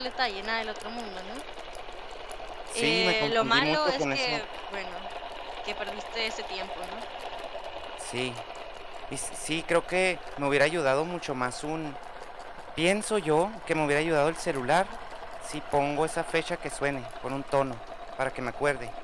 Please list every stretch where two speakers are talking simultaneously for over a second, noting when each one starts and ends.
2.7-4.4

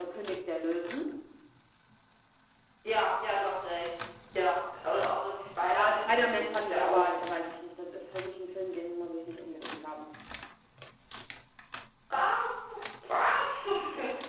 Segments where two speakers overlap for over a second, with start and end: 5.6-7.0

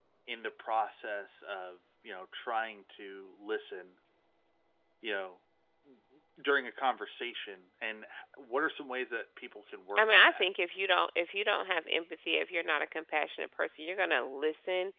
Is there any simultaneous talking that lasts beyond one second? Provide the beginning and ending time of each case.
none

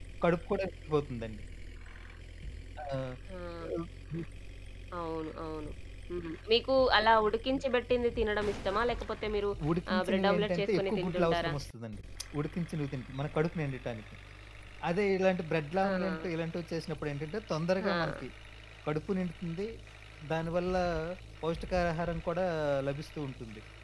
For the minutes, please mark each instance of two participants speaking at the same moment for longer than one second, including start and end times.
9.9-11.5

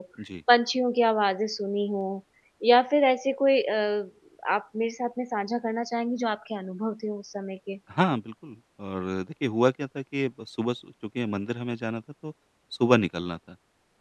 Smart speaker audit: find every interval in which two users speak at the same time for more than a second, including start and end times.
none

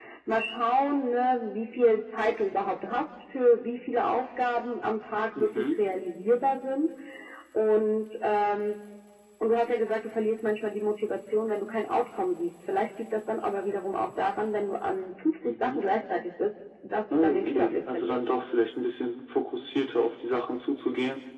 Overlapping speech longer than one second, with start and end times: 17.1-18.4

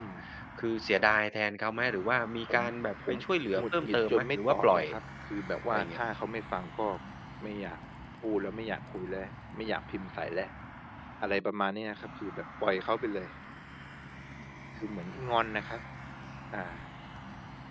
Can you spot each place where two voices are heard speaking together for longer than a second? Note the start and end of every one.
3.6-4.8

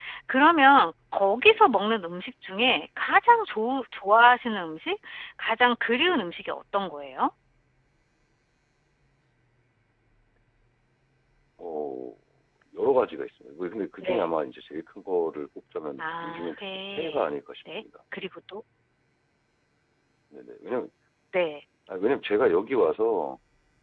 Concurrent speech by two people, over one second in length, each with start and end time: 16.0-17.2

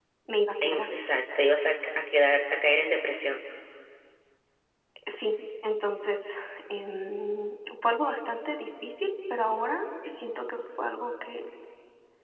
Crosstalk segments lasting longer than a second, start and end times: none

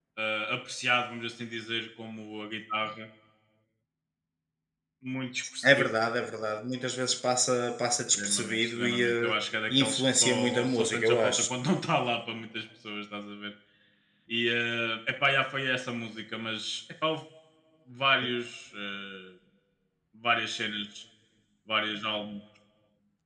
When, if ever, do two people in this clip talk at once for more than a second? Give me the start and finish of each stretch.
8.1-9.4, 9.7-11.5

